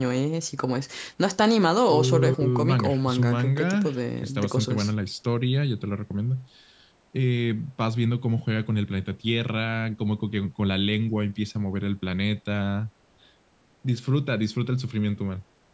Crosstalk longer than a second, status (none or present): present